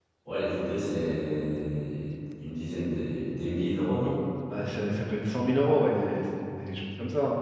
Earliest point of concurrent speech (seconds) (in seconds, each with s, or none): none